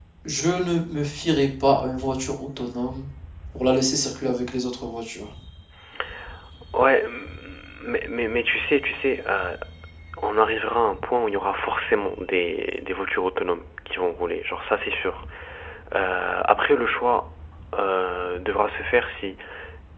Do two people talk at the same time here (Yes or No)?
No